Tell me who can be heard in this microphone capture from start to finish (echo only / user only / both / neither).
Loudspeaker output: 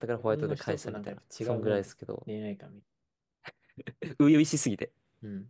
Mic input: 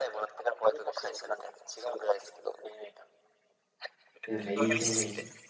both